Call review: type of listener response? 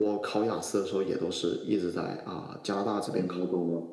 taking over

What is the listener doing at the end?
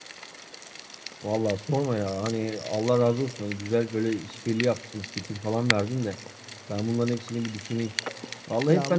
listening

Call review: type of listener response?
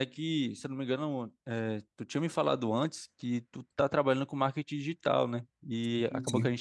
listening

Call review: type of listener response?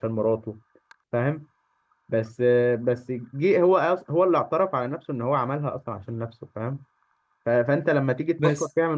listening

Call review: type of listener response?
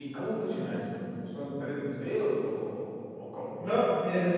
taking over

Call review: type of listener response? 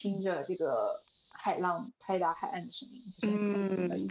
taking over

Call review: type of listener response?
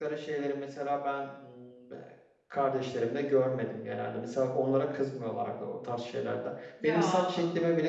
listening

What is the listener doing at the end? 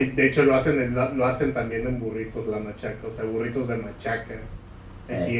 listening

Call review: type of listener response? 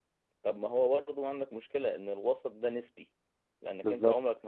listening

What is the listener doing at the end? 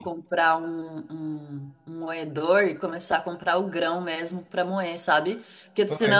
listening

